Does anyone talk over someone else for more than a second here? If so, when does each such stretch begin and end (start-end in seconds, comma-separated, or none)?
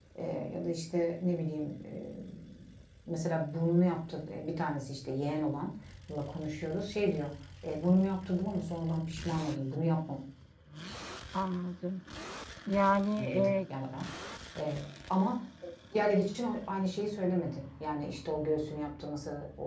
none